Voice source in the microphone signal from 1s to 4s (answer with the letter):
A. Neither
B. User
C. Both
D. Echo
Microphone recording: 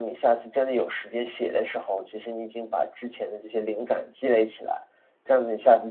D